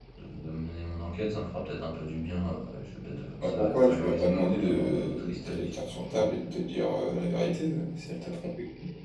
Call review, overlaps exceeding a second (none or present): present